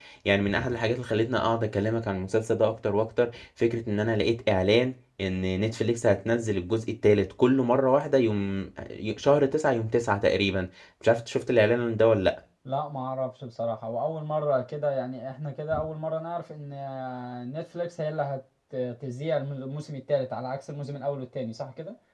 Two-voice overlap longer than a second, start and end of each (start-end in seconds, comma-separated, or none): none